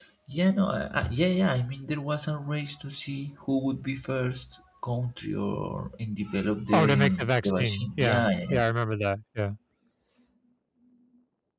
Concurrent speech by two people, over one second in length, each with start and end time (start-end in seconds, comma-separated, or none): 6.7-8.6